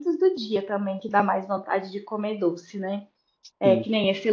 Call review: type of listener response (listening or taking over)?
listening